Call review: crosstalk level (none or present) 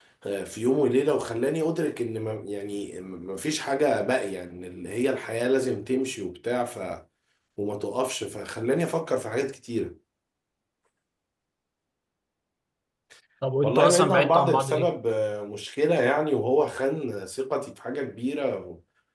present